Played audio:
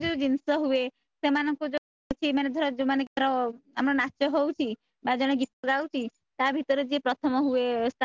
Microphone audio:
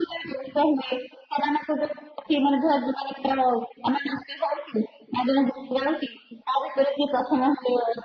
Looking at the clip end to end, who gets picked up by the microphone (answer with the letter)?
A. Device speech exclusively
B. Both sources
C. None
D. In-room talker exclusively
A